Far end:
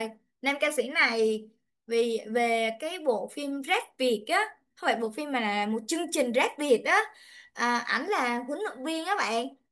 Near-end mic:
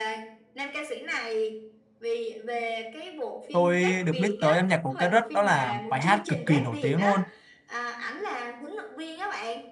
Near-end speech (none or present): present